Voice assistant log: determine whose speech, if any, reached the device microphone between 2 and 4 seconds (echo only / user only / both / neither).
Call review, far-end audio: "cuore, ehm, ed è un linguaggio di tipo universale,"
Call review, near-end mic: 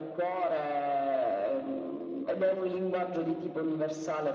echo only